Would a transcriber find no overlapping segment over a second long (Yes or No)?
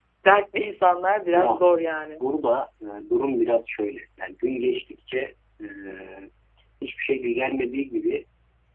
Yes